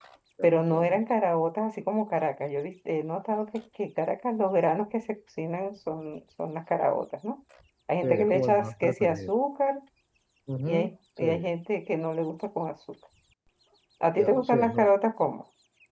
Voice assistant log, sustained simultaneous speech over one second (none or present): present